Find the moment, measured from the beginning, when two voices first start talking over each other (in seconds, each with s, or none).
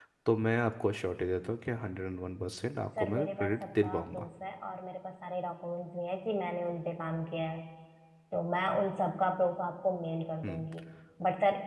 3.0 s